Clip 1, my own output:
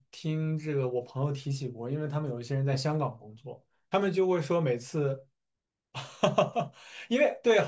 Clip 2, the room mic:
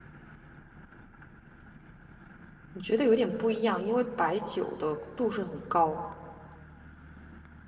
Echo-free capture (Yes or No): Yes